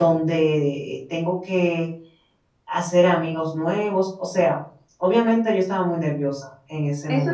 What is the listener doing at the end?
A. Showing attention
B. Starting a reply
B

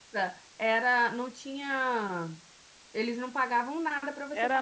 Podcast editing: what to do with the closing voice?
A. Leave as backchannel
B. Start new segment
B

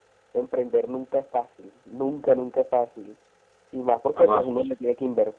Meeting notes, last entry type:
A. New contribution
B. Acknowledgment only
B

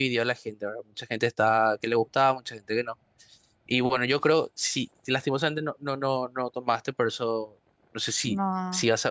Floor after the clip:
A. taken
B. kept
B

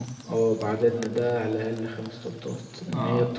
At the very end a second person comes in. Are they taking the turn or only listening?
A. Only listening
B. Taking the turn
A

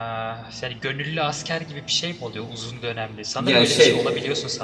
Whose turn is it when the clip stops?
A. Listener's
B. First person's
B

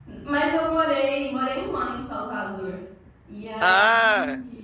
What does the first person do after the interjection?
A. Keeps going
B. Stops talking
A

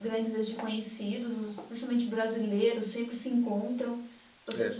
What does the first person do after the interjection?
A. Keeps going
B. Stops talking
A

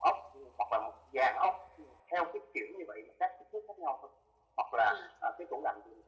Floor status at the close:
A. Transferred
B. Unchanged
B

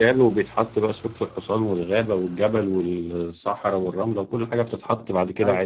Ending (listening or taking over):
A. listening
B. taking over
B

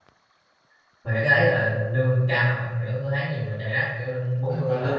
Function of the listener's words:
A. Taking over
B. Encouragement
A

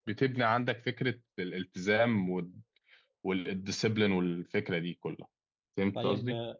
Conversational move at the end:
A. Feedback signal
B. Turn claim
B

